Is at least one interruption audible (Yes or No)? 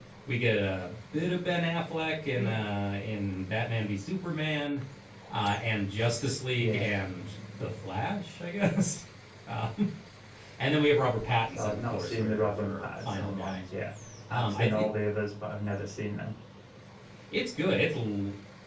Yes